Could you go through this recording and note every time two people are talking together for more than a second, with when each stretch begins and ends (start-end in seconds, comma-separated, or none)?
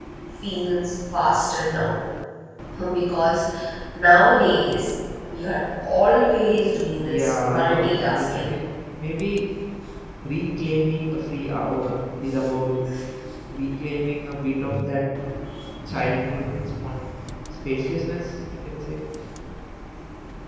7.0-8.5